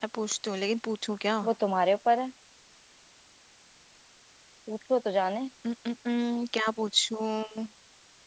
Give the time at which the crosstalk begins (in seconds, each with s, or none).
none